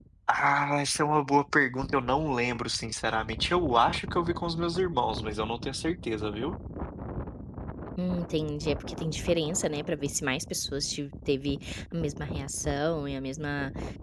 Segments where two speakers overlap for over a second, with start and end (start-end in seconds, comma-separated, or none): none